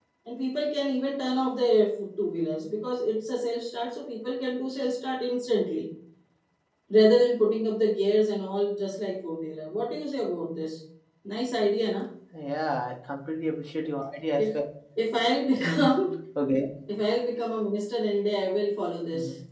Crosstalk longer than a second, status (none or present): none